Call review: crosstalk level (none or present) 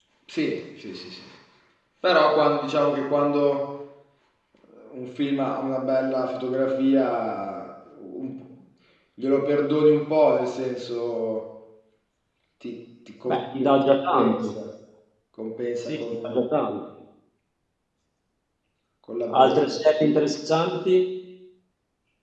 present